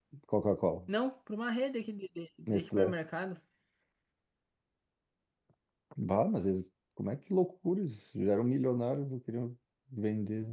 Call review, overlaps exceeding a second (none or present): none